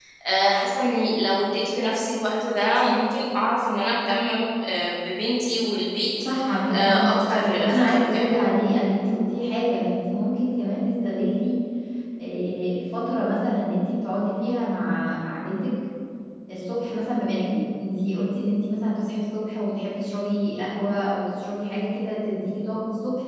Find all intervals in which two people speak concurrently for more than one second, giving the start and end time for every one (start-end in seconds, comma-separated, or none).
6.7-8.3